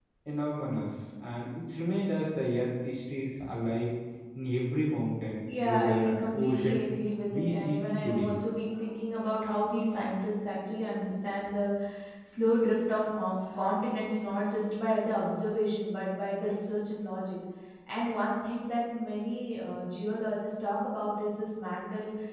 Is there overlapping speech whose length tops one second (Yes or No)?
Yes